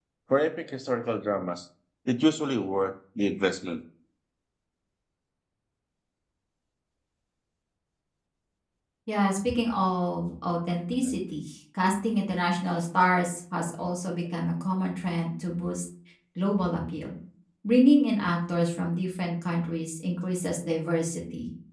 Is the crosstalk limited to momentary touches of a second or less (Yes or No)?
Yes